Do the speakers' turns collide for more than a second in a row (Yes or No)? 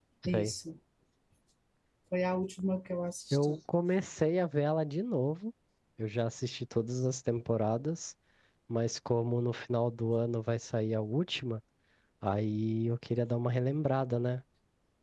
No